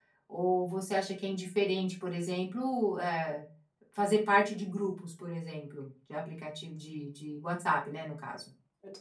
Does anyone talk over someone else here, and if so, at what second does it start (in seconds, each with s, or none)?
none